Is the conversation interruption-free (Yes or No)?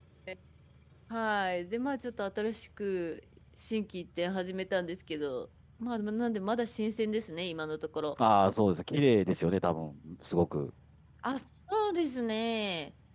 Yes